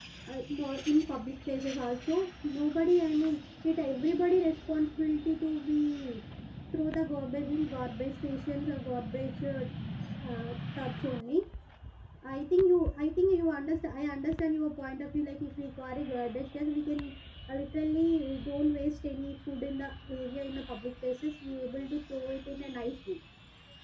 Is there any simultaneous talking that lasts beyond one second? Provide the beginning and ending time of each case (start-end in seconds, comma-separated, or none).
none